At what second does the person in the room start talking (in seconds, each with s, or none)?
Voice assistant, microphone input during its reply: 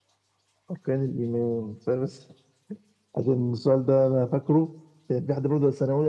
none